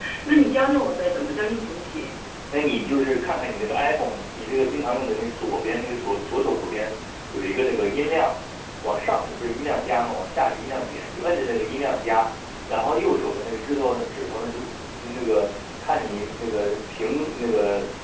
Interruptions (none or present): none